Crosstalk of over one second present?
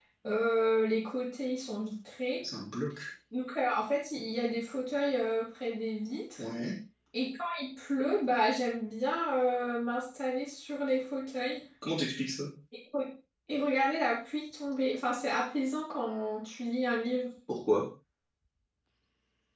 No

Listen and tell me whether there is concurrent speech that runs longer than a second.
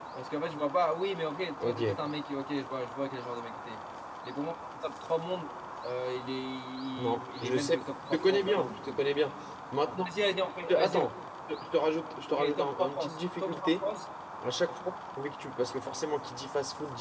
Yes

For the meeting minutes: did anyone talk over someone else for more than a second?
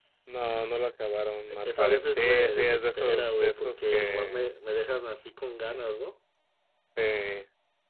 Yes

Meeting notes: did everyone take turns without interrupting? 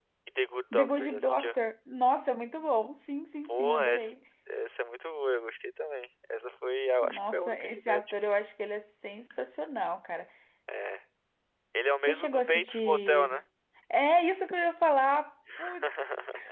No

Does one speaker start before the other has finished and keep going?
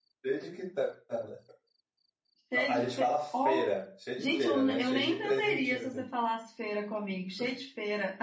Yes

